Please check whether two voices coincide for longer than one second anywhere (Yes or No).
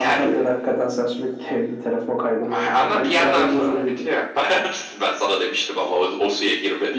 Yes